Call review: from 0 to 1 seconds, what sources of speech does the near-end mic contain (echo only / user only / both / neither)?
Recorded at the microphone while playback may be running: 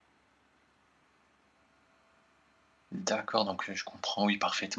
neither